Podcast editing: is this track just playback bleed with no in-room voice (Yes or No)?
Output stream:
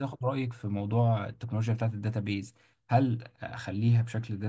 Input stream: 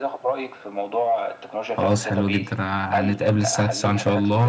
No